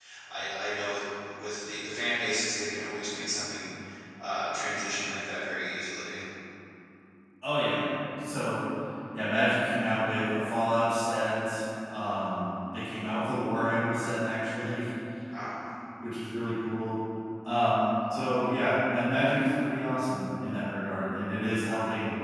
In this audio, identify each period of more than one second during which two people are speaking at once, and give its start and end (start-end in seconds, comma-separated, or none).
none